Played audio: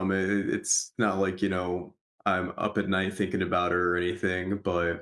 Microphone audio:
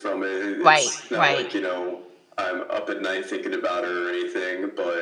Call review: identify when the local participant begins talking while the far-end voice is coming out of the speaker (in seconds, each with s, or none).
0.6 s